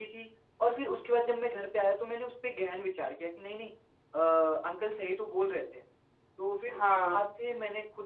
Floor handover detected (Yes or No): No